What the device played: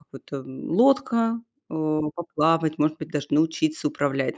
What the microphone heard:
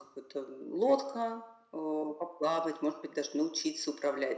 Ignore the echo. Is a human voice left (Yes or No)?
No